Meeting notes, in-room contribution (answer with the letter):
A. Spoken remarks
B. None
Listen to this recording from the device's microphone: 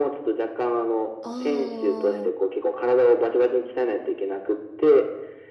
A